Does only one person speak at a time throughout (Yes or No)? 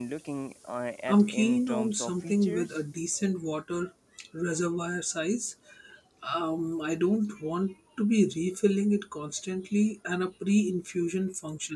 No